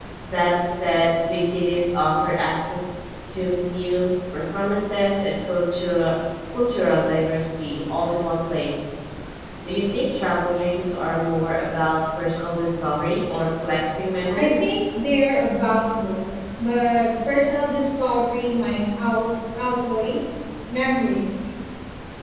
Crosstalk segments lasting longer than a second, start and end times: none

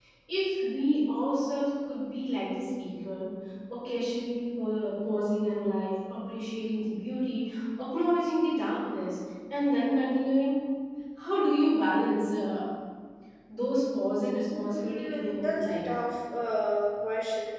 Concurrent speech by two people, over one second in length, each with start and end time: 14.6-15.8

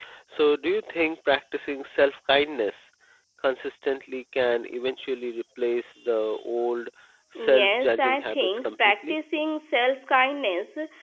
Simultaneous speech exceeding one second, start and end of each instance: 7.4-9.2

